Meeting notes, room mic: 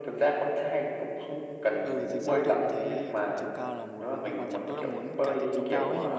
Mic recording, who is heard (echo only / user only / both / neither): both